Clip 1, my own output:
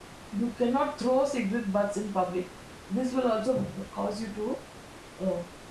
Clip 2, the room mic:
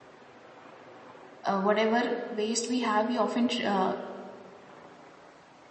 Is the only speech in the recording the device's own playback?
No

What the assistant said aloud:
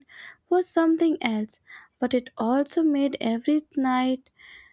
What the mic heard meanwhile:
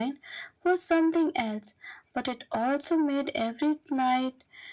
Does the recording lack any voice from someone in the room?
Yes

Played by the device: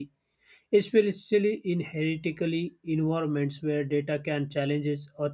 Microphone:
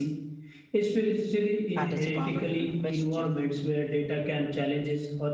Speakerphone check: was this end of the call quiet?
No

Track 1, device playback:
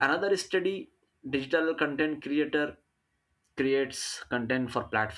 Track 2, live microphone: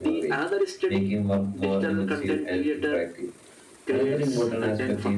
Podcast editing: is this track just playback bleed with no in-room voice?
No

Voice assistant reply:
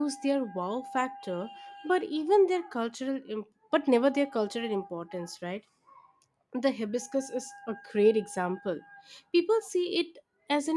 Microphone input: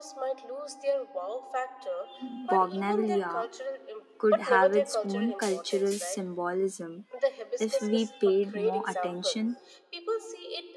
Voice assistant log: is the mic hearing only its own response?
No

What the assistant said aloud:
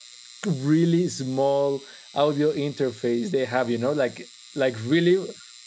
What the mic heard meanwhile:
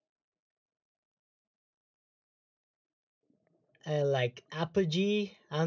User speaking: Yes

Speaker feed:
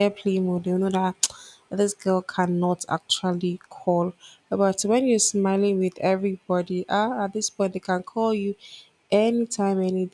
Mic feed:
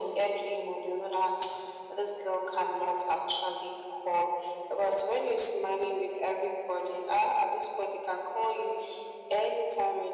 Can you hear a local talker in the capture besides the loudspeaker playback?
No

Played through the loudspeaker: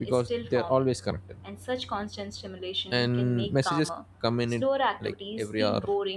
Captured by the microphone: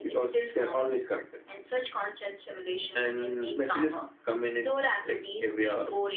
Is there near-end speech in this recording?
No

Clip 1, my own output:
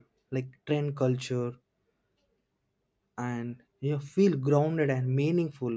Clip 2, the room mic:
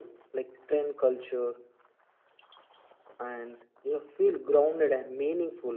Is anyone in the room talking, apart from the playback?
No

